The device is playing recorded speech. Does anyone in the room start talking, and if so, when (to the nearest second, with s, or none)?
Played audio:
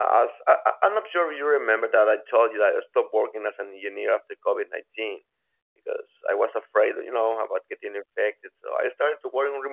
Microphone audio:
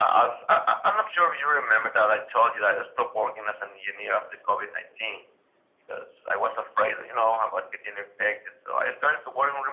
none